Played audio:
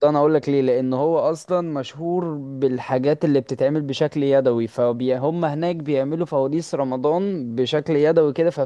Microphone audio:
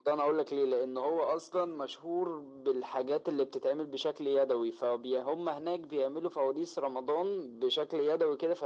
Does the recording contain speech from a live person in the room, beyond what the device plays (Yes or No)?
No